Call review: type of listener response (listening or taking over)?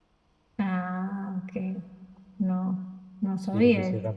taking over